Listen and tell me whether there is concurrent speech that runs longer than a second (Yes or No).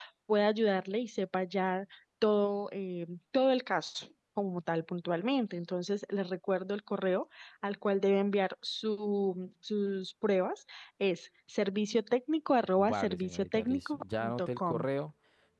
Yes